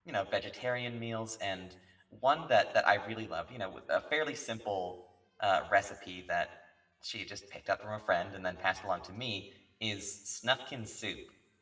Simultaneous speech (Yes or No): No